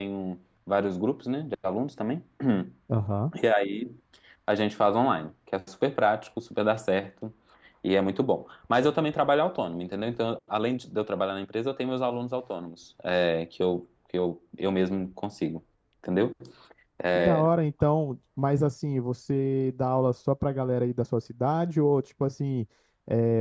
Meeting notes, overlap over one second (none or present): none